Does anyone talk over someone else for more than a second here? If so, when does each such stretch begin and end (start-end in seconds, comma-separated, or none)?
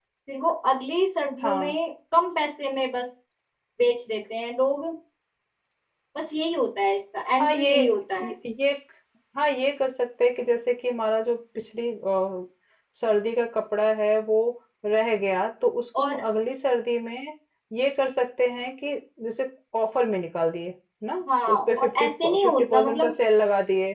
21.5-23.1